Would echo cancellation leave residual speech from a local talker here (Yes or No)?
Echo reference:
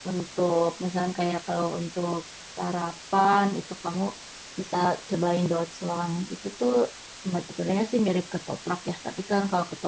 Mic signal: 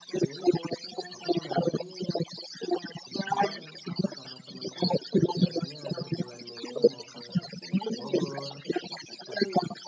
Yes